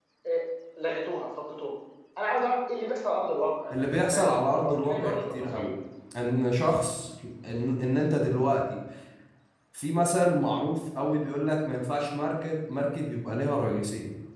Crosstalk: present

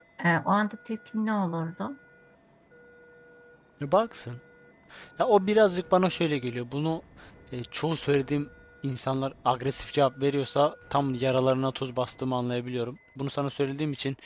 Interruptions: none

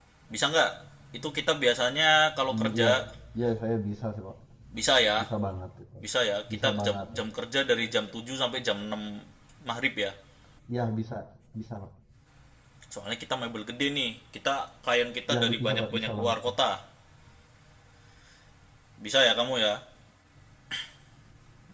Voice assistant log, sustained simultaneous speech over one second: present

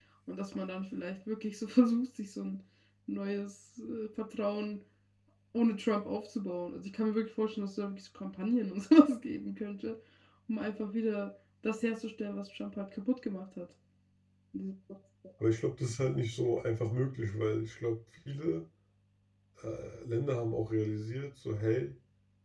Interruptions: none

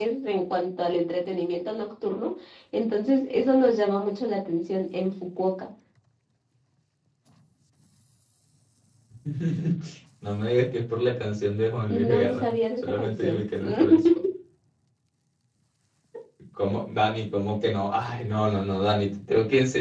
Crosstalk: present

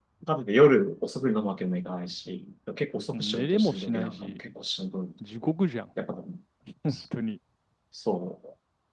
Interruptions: present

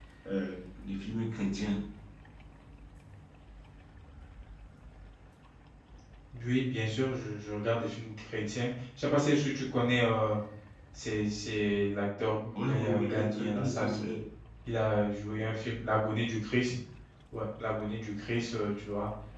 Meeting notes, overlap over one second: present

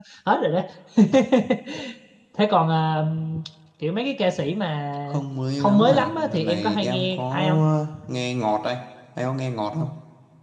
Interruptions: present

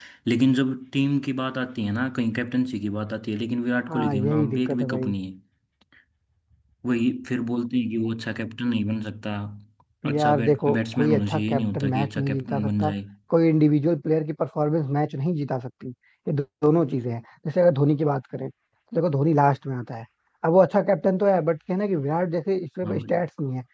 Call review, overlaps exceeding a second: present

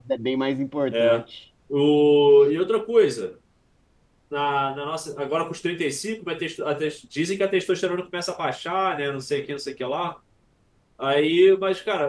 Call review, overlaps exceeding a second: none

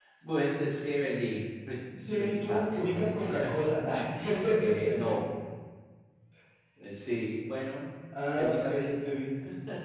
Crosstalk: present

